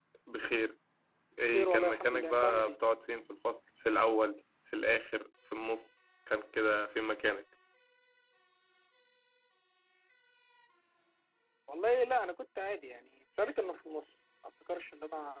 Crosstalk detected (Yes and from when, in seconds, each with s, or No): Yes, from 1.5 s